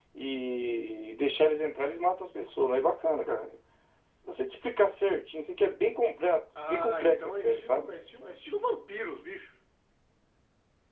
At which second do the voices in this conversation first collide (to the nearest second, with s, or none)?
7 s